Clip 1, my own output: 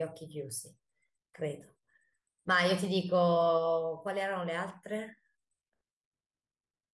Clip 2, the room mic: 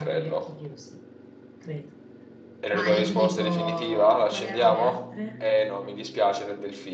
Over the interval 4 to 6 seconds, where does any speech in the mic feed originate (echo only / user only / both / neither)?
both